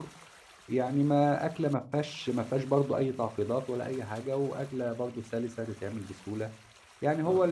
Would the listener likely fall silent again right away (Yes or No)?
Yes